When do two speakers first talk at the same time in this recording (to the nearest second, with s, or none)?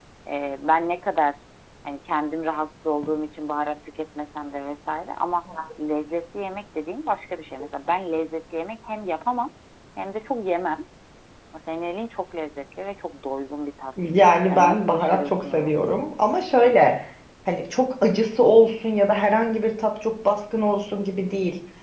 14 s